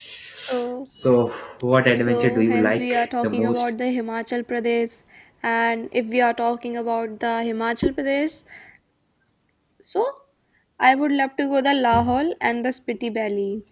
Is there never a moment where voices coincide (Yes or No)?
No